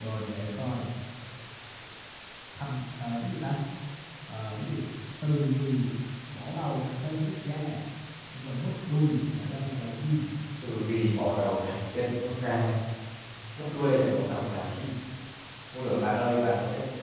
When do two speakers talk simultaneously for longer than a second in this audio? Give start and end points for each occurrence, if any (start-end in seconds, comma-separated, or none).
none